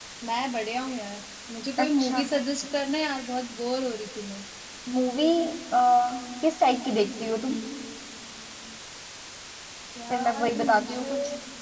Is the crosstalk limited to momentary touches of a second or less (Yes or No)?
No